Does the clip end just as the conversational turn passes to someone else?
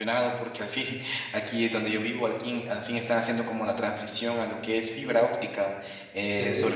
No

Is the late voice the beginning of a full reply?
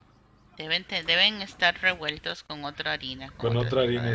Yes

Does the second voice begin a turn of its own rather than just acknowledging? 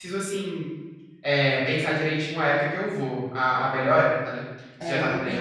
Yes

